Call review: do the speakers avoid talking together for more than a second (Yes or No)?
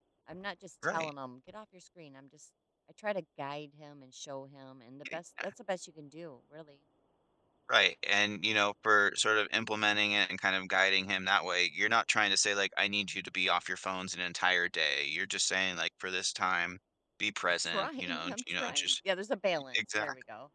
No